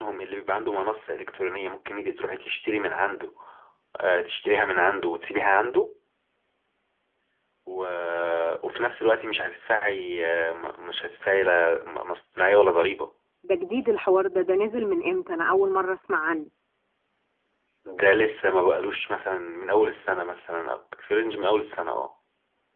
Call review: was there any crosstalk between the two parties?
No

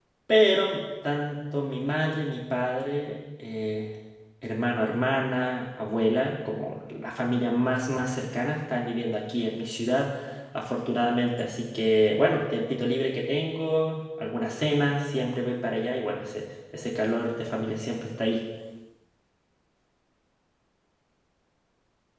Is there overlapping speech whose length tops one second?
No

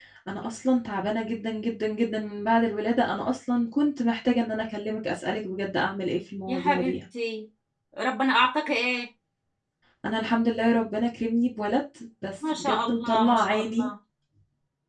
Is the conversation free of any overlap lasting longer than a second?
No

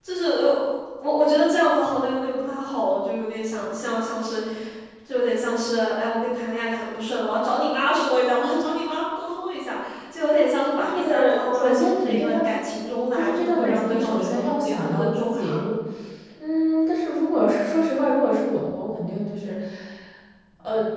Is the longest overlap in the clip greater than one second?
Yes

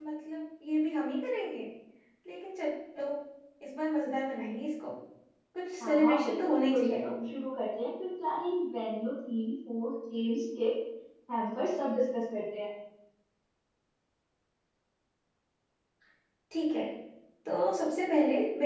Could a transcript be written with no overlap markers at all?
No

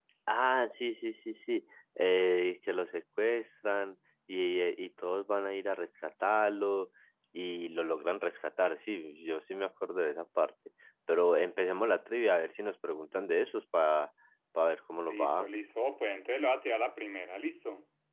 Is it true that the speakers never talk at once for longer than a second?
Yes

